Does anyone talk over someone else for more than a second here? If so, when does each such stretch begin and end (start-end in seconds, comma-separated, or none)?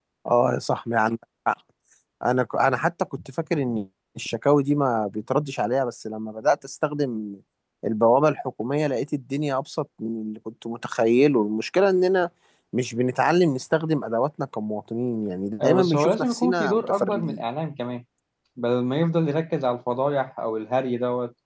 15.6-17.4